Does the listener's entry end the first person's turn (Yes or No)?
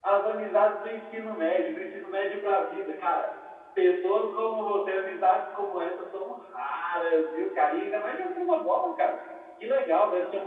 No